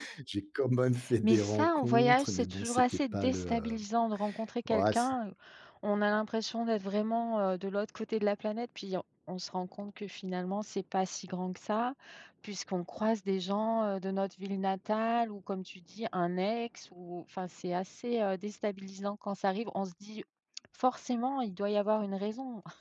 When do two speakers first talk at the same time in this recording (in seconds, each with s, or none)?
1.2 s